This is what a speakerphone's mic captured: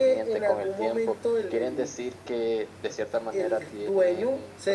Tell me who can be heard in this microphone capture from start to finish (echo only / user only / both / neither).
echo only